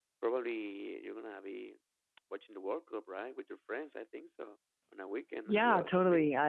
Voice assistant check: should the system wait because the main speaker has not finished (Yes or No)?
No